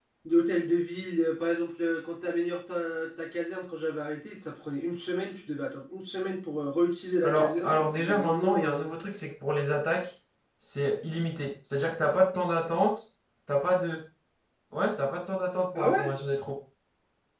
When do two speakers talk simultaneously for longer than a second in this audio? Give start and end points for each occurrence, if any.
7.2-8.9

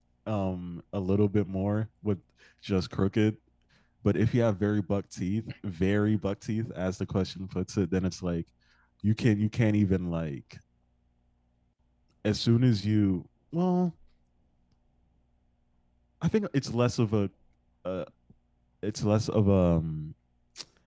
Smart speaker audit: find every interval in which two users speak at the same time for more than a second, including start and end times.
none

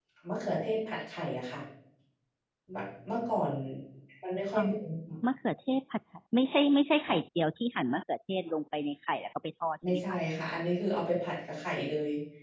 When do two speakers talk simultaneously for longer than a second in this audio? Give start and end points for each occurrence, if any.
none

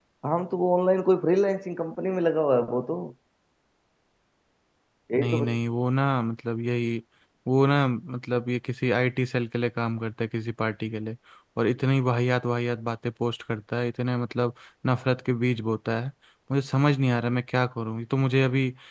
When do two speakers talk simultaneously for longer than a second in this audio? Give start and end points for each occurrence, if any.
none

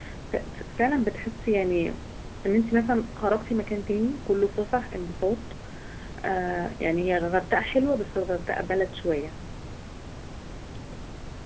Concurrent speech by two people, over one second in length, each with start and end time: none

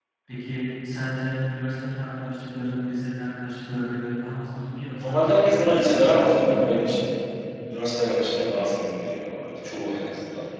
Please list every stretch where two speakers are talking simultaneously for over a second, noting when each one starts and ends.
5.7-7.1

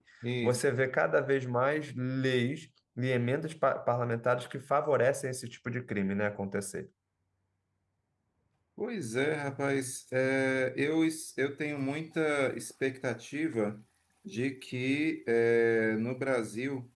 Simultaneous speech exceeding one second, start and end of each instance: none

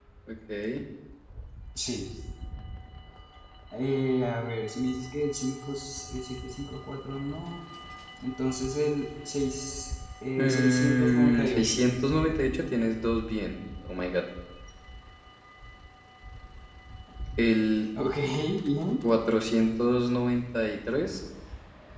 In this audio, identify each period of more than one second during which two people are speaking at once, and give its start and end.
10.4-11.8

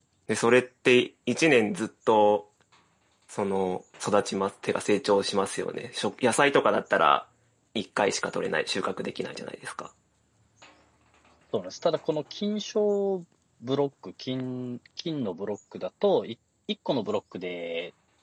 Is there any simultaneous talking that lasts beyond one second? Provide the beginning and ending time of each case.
none

